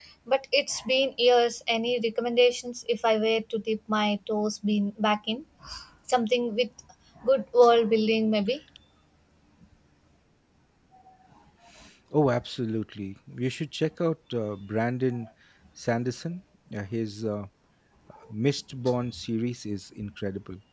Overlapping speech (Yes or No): No